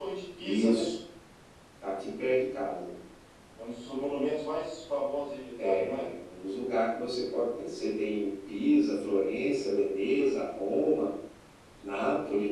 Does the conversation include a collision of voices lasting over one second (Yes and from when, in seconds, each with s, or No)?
No